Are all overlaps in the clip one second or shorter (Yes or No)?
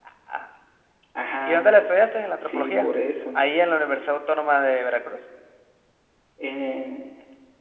Yes